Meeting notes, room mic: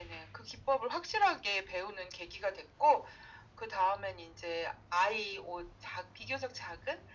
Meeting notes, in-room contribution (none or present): none